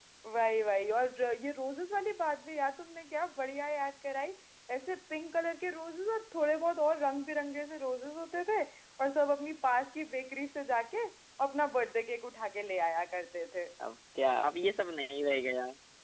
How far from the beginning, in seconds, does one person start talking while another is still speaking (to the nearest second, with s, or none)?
none